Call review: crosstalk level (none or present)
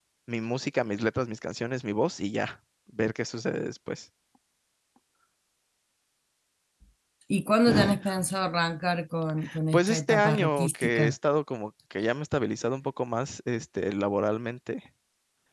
present